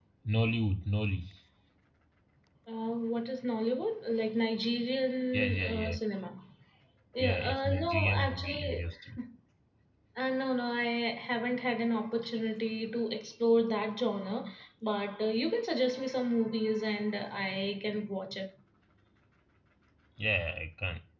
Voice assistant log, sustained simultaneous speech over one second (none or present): present